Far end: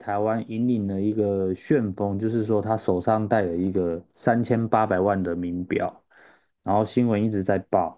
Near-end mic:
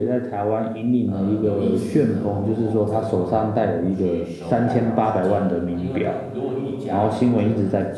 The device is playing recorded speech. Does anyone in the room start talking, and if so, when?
1 s

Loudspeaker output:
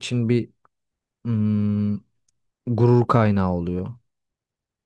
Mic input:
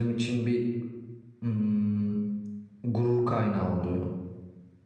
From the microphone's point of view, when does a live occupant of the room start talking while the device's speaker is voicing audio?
none

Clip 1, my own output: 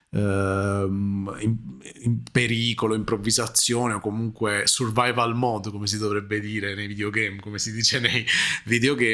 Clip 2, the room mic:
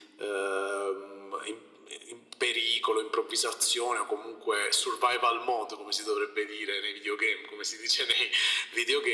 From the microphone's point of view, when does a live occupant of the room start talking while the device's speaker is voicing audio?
none

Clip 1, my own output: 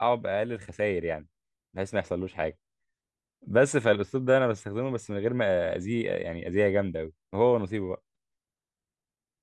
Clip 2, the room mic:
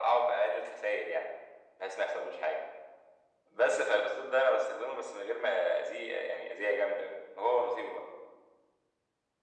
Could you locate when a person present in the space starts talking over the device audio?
none

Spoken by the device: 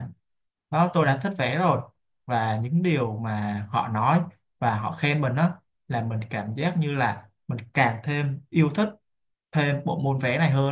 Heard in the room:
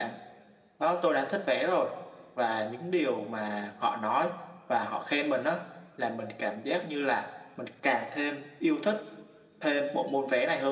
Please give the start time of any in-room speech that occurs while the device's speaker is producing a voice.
none

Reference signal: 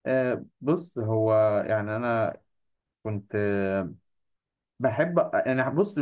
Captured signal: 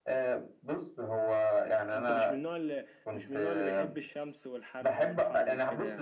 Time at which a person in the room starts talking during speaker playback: 2 s

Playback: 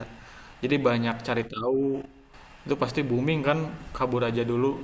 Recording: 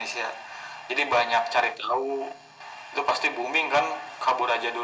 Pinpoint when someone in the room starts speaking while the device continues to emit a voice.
none

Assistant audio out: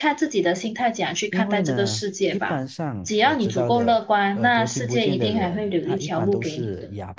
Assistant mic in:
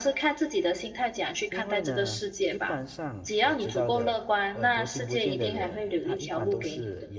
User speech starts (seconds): none

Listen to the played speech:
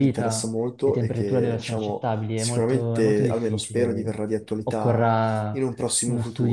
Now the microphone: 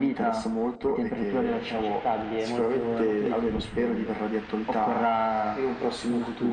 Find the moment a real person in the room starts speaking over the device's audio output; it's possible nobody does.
none

